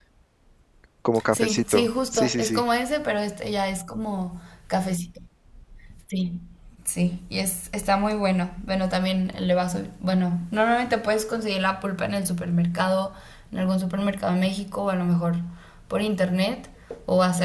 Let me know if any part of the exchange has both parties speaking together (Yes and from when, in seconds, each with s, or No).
Yes, from 1.3 s